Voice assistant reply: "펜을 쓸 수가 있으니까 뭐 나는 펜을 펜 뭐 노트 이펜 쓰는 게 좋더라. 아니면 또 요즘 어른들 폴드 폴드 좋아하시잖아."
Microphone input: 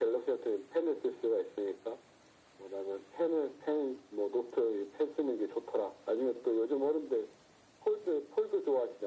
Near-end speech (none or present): none